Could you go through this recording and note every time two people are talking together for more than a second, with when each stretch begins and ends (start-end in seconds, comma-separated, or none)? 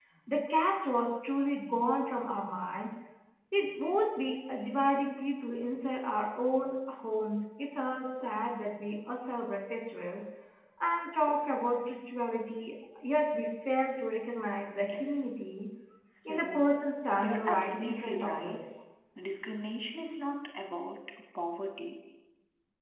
17.2-18.6